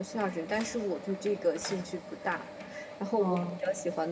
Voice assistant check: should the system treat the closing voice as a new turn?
No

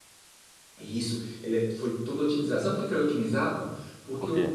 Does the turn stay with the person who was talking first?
Yes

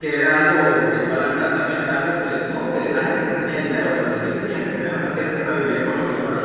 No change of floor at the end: No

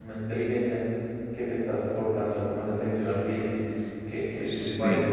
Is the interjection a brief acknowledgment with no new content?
No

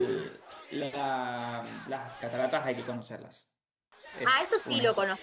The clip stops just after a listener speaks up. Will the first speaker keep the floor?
No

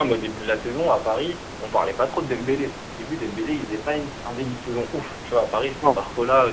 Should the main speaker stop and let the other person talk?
No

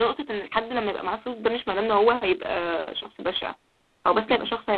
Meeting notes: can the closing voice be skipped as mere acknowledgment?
Yes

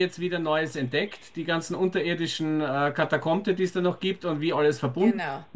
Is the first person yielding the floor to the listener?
No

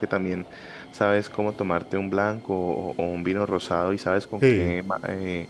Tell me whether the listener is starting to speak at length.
No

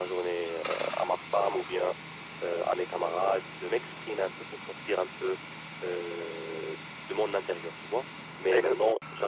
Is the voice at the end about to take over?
No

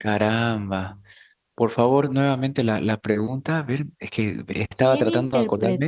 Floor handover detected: Yes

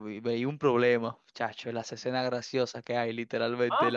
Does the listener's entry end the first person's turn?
Yes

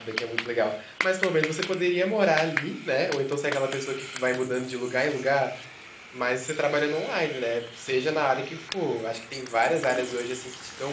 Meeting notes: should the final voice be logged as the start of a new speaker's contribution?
No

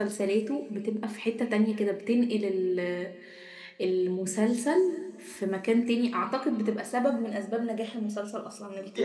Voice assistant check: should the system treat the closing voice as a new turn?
Yes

